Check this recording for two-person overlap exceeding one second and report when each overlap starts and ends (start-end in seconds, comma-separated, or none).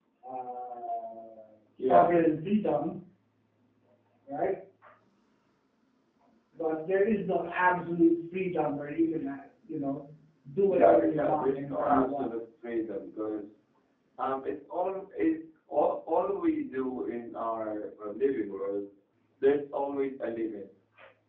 10.7-12.3